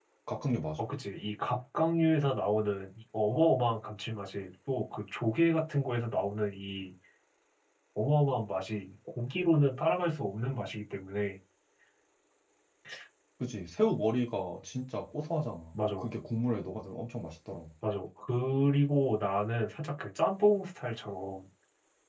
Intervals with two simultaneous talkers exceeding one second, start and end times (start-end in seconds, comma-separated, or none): none